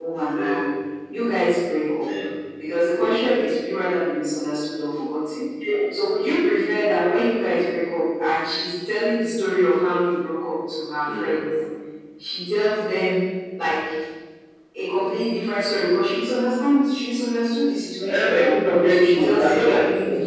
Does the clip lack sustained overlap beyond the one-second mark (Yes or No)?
No